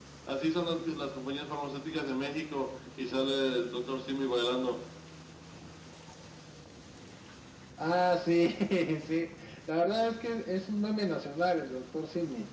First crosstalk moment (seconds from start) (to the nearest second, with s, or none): none